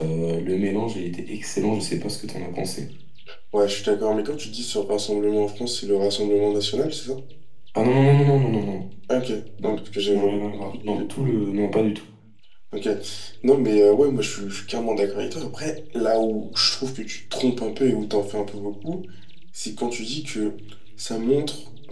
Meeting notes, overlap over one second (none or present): present